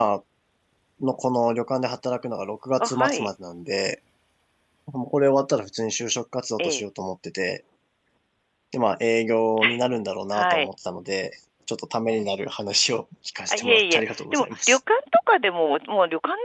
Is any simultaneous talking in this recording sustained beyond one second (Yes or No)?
Yes